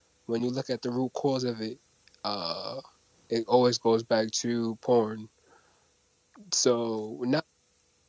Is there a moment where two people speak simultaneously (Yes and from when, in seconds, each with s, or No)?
No